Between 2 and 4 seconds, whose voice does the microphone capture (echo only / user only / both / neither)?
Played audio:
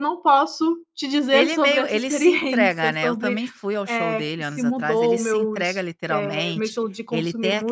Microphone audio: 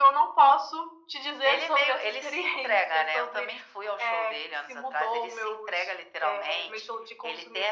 echo only